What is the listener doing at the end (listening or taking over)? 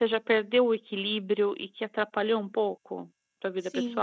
taking over